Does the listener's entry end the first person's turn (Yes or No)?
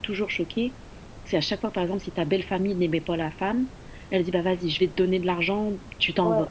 No